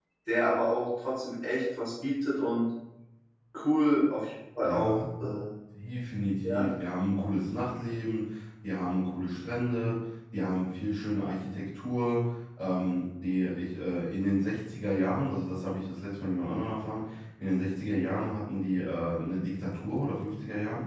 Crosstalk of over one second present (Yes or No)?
No